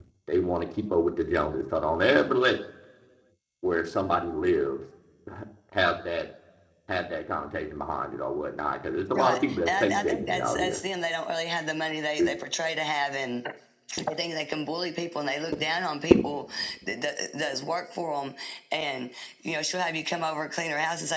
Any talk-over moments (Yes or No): Yes